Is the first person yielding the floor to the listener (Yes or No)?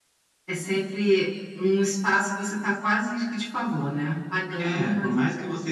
Yes